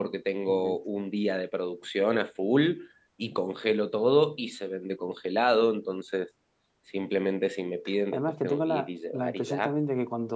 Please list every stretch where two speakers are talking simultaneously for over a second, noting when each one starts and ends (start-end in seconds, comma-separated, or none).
8.1-9.7